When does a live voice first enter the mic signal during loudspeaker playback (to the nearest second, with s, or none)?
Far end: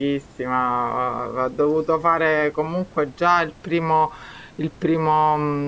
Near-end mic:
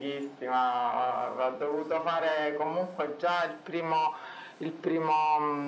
none